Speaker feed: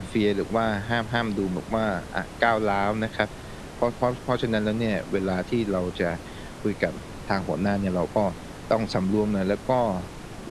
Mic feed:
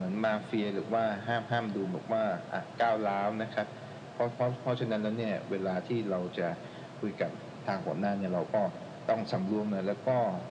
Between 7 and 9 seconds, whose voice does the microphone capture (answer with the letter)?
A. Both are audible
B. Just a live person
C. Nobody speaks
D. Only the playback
D